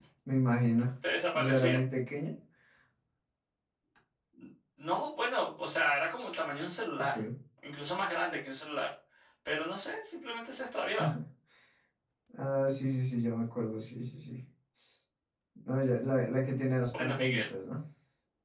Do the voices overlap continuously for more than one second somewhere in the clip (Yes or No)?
No